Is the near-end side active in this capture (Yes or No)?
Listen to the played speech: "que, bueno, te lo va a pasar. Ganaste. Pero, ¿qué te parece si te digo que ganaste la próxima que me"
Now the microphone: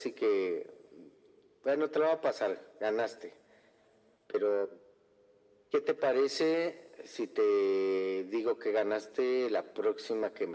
No